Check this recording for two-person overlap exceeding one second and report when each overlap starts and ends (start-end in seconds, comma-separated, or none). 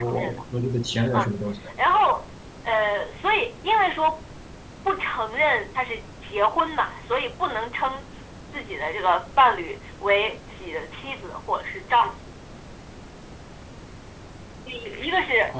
none